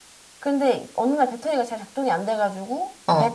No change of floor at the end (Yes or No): Yes